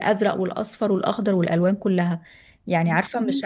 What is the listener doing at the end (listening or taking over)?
listening